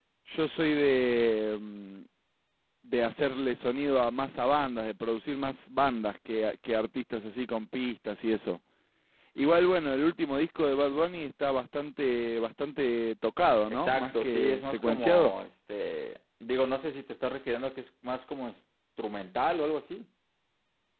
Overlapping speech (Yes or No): Yes